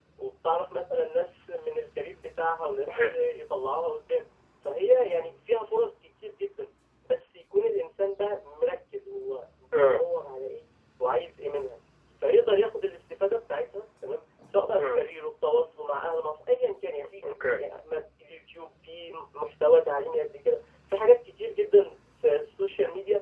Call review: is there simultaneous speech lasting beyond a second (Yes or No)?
No